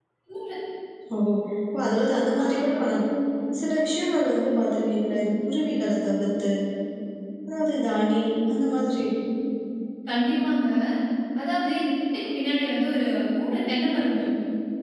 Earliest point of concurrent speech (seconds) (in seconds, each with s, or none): none